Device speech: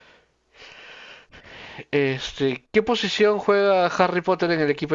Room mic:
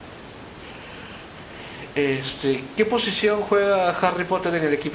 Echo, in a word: present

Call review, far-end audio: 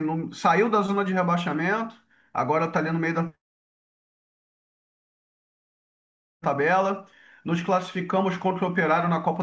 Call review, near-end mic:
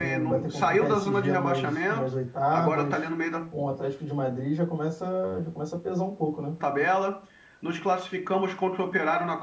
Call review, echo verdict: present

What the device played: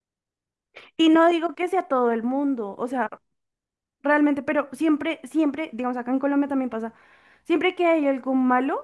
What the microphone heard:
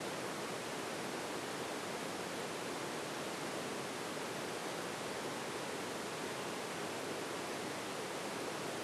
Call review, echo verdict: none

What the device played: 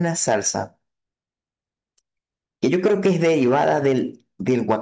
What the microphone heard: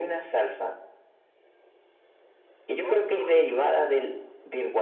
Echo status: present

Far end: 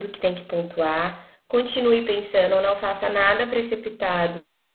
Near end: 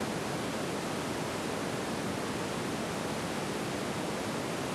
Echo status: none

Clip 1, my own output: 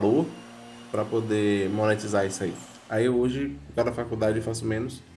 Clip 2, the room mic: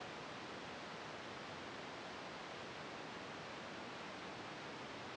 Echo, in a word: none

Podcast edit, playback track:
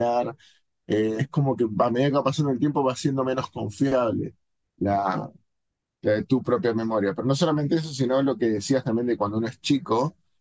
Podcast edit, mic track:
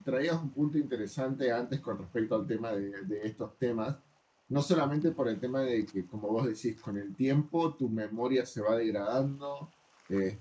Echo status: none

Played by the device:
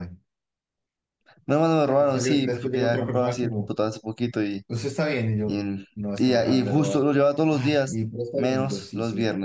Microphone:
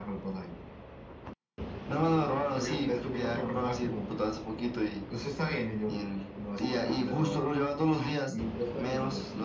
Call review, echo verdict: present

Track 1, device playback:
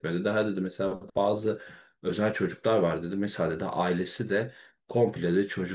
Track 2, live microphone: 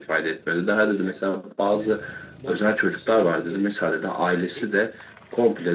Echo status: present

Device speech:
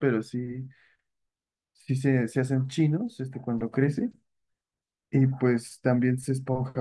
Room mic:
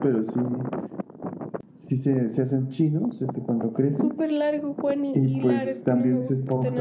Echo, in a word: present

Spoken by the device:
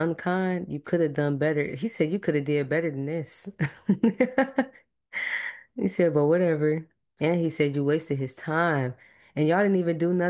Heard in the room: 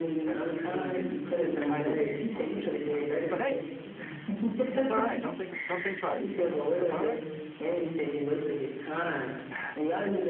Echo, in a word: present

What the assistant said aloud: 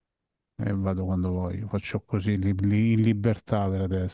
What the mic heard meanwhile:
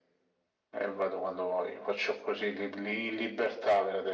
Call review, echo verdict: present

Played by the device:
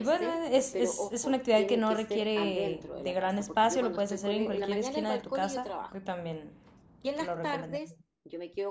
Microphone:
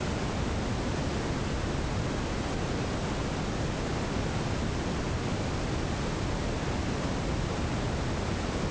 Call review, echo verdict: none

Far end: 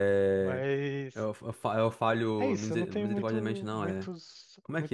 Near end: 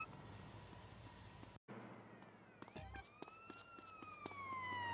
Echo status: none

